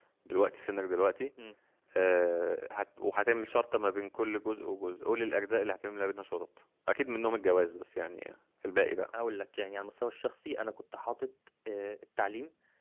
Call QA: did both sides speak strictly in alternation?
Yes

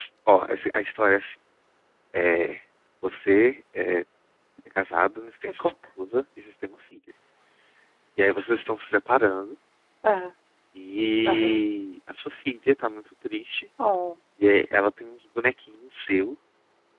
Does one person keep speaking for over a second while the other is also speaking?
No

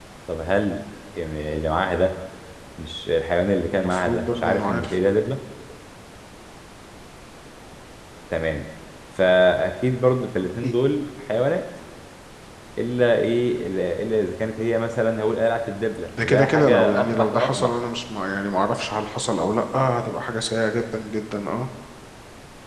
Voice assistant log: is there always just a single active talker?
No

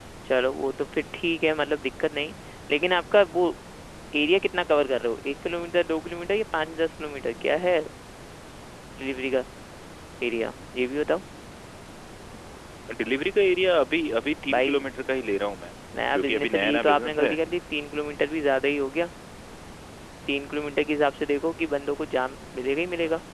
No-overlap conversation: No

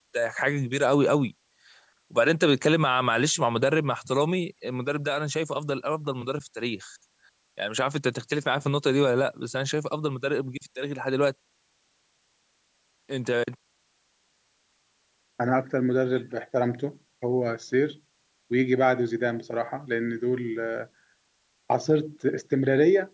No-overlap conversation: Yes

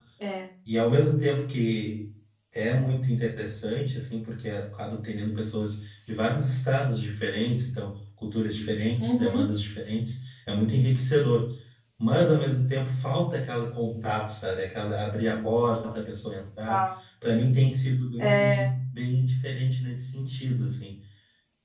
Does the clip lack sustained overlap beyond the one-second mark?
Yes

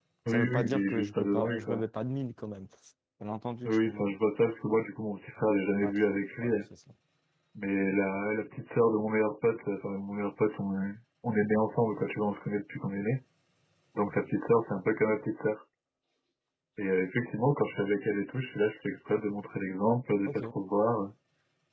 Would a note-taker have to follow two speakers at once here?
Yes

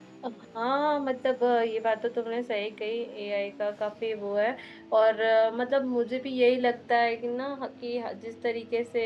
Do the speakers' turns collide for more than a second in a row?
No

